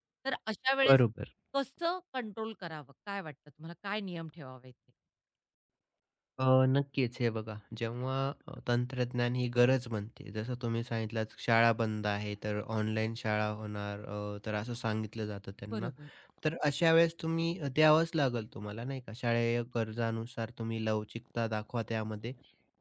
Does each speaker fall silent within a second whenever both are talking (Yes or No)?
Yes